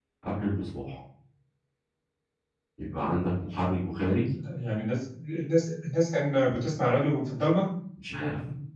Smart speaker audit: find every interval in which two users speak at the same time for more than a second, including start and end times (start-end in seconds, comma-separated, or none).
none